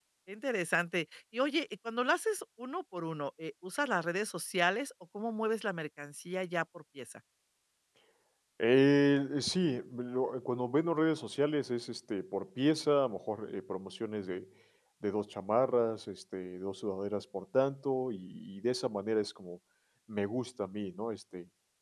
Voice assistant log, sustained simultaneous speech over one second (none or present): none